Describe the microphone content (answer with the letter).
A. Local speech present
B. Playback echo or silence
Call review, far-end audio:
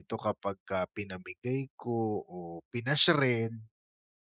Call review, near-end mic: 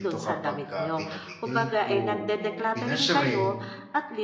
A